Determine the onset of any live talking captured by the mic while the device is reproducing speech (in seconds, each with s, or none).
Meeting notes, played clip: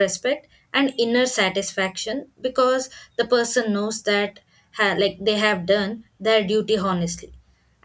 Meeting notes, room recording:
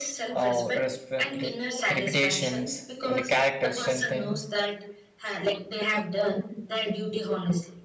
0.3 s